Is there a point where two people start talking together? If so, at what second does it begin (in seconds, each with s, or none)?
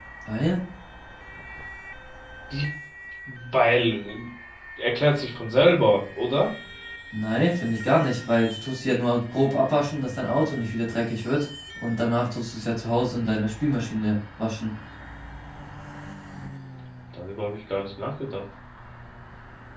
none